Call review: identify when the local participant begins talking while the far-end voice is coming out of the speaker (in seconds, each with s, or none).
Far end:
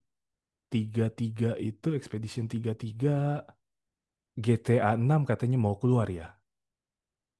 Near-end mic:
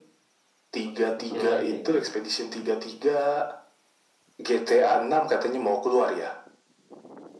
0.8 s